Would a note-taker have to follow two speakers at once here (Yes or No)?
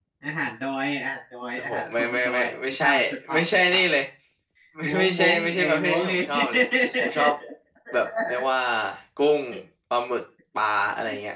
Yes